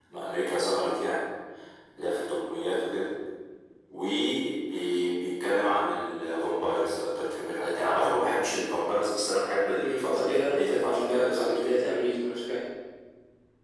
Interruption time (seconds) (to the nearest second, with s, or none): 10 s